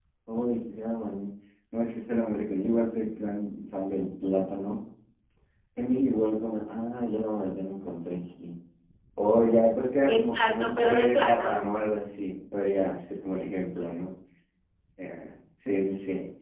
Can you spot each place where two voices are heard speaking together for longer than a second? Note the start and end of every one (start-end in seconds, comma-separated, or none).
10.1-11.6